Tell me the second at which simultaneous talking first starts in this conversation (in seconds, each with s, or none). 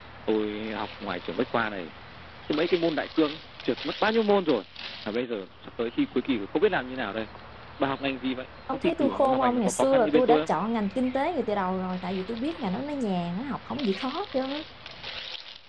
8.7 s